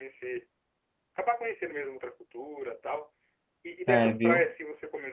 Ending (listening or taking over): listening